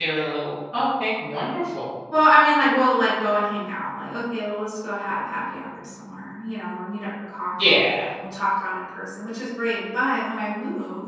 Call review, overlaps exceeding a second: none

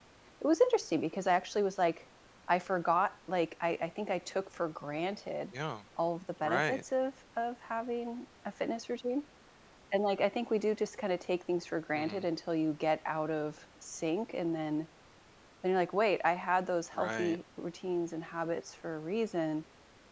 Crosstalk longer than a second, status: none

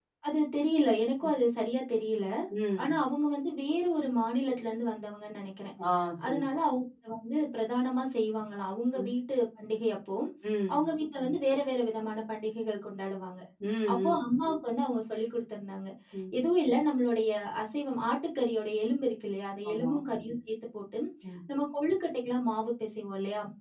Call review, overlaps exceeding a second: none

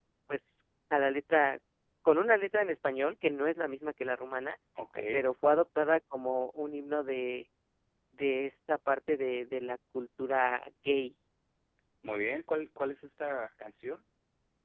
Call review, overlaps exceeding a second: none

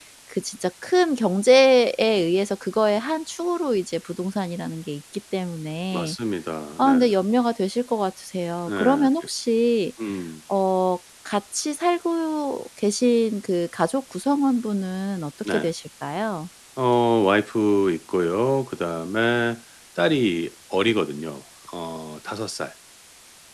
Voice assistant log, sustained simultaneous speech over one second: none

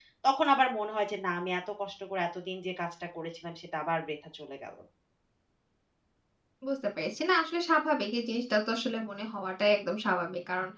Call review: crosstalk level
none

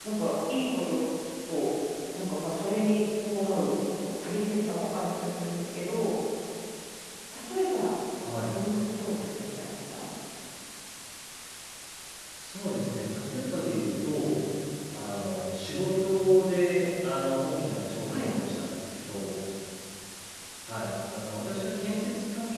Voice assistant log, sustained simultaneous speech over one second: none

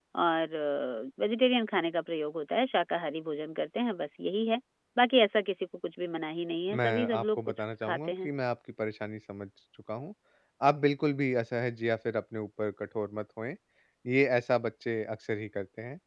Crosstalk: present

